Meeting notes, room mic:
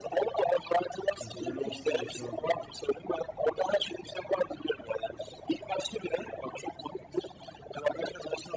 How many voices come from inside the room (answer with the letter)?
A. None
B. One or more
B